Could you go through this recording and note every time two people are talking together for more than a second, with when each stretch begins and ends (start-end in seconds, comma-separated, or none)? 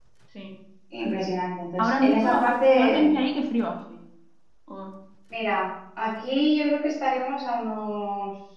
1.8-3.2